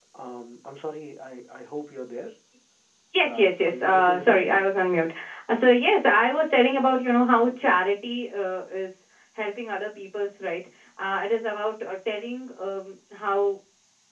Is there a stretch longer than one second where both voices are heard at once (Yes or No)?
Yes